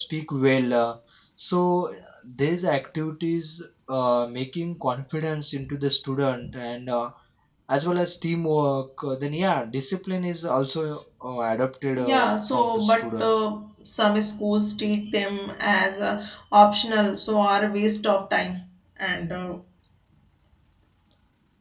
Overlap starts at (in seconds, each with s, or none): 12.0 s